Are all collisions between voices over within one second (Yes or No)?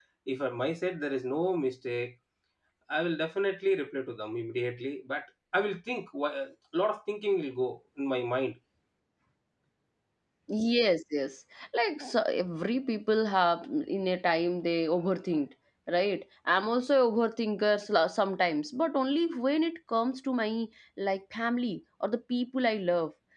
Yes